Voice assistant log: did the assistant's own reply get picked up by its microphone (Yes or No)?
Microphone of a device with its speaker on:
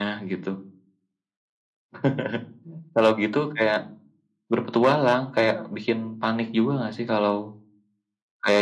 Yes